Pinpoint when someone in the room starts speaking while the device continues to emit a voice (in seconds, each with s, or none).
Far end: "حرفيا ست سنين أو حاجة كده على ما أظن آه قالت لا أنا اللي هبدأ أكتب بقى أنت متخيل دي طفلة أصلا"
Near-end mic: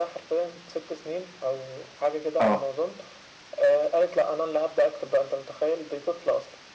2.4 s